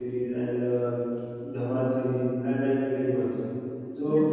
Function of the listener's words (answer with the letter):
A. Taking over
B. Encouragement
A